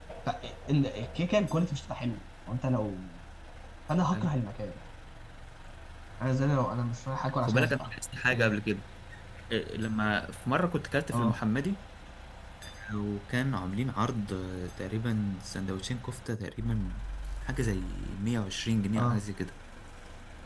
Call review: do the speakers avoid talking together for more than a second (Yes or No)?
Yes